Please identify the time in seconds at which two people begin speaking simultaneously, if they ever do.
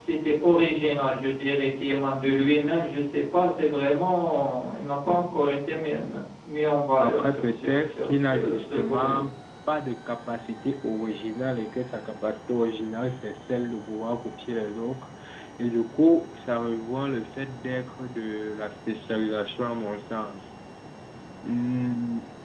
7.0 s

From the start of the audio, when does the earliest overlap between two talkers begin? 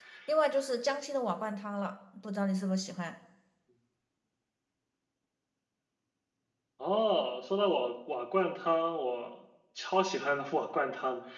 none

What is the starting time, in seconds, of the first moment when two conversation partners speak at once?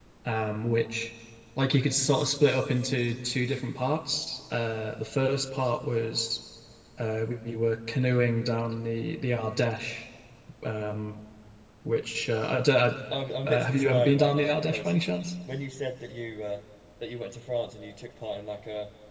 13.5 s

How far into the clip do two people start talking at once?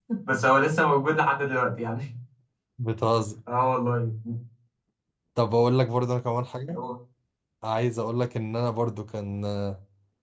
none

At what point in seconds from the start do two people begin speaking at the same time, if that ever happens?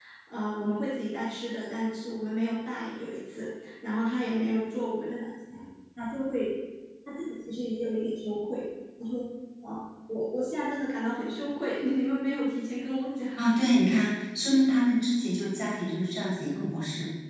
none

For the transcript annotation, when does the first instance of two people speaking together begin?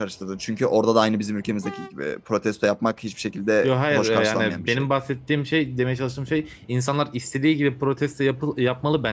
3.6 s

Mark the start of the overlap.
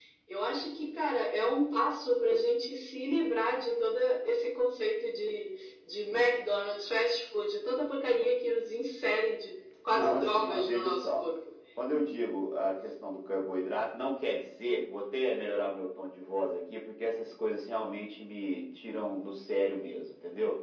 9.9 s

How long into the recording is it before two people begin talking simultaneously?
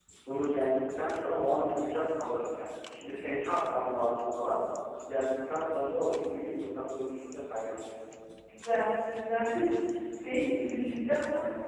none

